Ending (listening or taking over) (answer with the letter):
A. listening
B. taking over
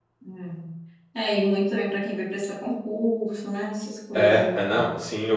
B